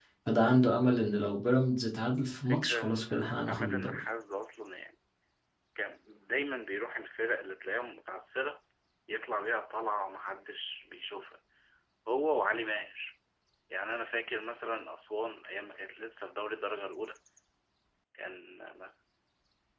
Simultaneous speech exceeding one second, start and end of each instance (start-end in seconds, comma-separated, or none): 2.5-4.0